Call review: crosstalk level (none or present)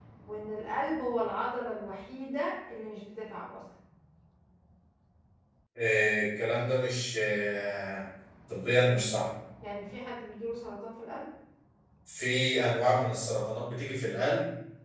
none